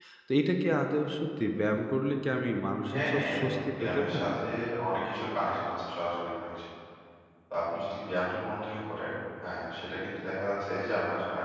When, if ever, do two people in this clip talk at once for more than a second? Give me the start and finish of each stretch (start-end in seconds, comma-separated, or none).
2.9-4.3